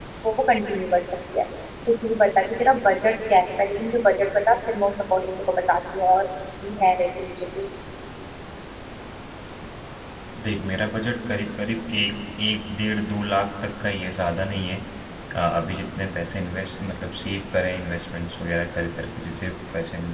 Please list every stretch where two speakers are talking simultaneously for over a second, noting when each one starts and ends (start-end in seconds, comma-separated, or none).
none